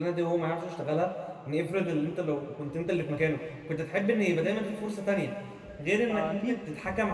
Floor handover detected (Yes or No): No